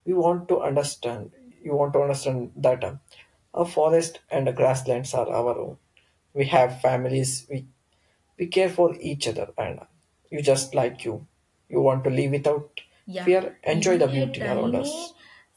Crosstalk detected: Yes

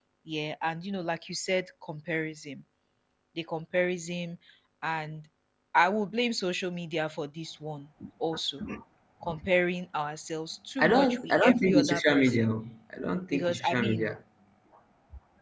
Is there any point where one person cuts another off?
Yes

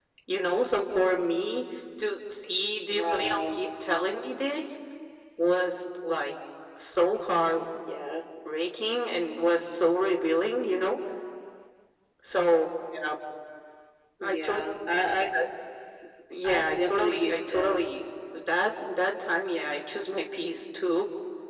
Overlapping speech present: Yes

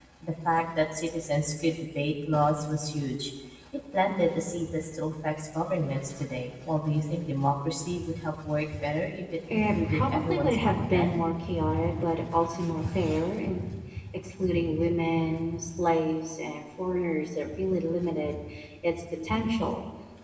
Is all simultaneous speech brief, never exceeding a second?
No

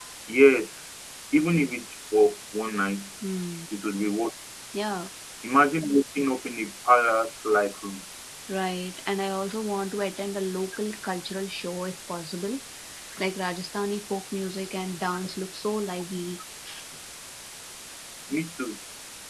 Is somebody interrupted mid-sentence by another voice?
No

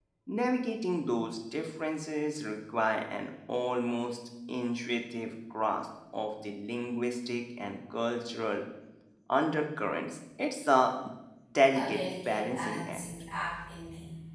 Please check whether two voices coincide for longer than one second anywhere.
Yes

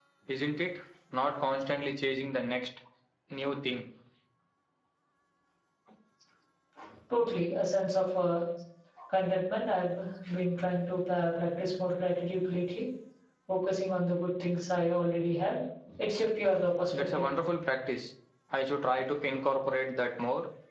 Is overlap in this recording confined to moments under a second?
Yes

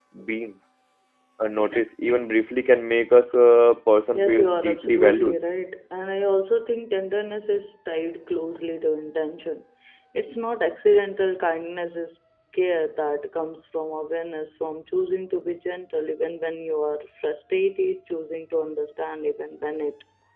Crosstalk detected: Yes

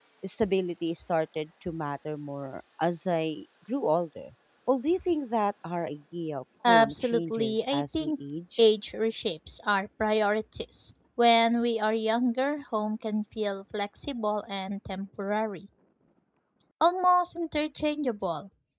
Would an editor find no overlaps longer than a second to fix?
No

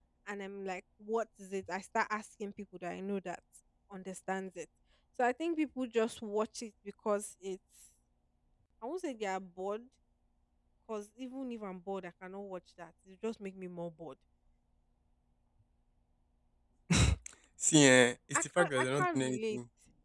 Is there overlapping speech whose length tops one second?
Yes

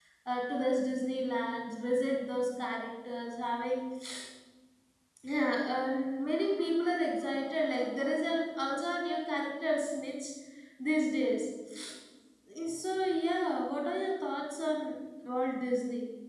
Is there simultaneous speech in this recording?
No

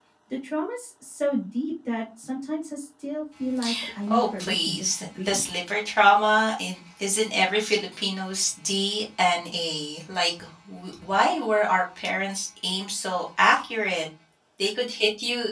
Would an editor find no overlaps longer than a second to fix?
No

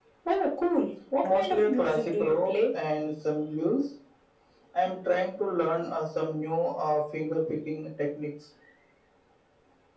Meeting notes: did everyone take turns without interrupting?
No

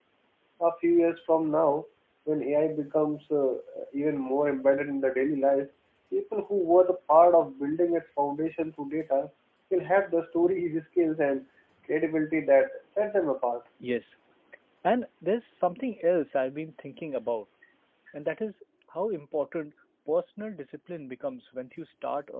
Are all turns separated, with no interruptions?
Yes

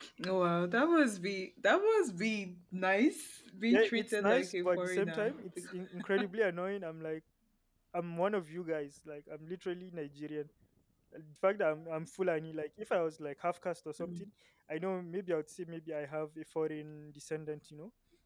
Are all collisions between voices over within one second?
No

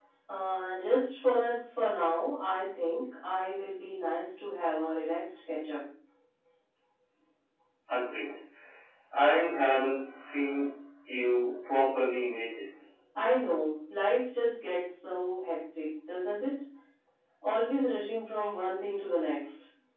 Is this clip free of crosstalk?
Yes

